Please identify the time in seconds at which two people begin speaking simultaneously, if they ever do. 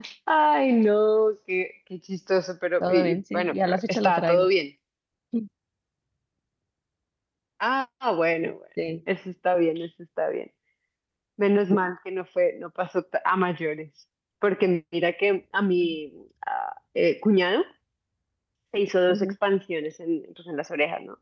2.8 s

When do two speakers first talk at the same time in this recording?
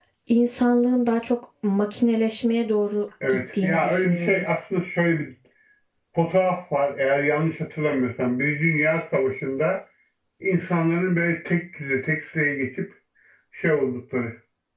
3.2 s

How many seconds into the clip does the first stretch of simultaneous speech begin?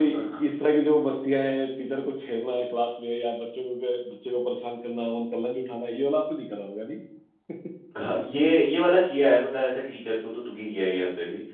none

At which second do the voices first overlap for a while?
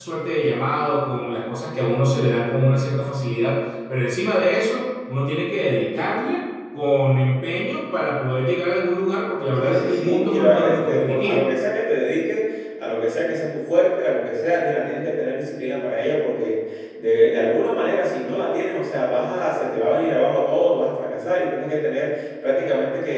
9.6 s

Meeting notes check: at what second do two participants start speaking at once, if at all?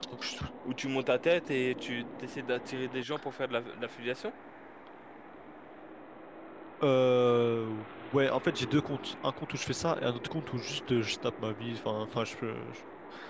none

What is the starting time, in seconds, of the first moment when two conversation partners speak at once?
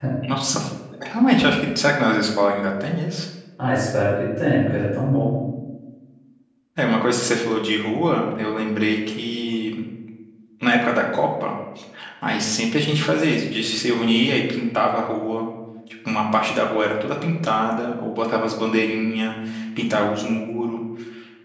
none

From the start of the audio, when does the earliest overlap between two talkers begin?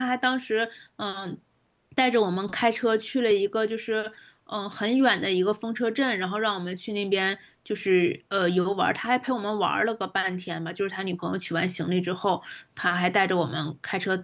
none

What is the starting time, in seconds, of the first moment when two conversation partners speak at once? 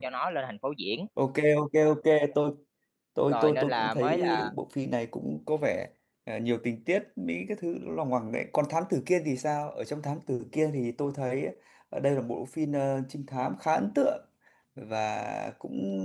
3.3 s

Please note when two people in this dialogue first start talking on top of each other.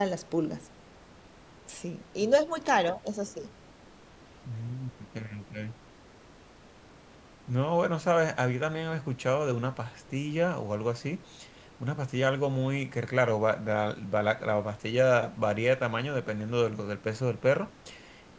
none

